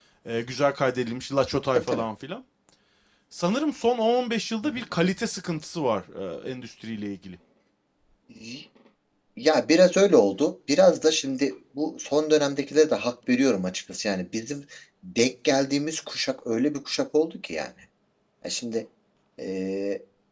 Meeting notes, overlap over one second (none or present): none